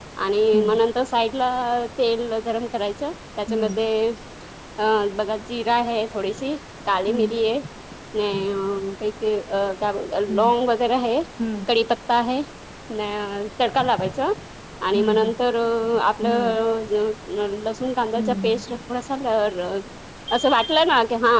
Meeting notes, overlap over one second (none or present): none